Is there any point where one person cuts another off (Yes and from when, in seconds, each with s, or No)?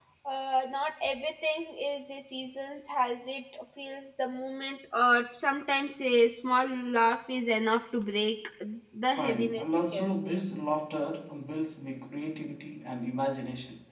Yes, from 9.1 s